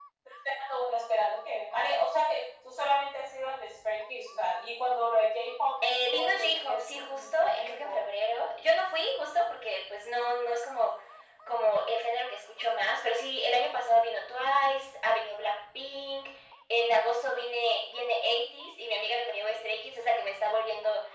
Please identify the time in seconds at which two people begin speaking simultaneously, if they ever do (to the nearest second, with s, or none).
6 s